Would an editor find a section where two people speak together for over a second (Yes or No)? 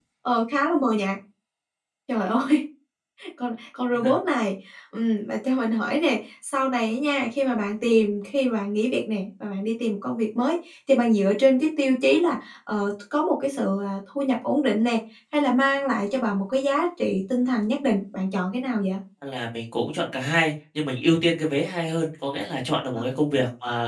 No